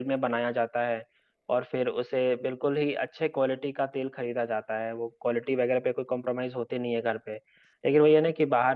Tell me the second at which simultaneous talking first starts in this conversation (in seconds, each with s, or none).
none